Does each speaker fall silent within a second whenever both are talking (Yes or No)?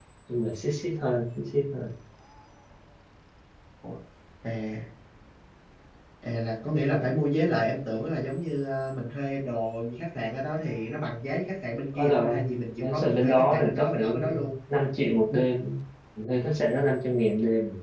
No